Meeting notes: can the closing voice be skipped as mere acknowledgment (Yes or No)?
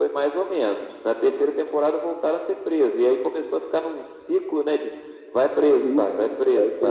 No